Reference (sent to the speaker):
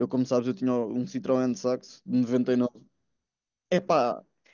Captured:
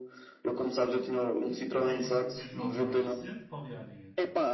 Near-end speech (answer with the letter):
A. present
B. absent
A